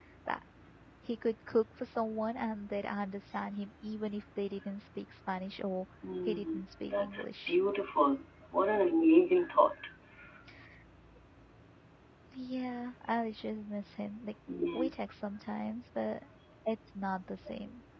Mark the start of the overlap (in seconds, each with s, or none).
6.2 s